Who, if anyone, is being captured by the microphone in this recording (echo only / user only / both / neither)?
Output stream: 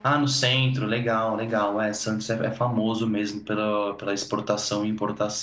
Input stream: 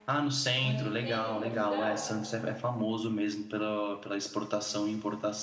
both